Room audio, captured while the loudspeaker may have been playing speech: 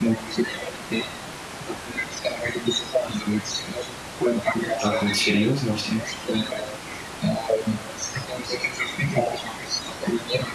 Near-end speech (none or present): present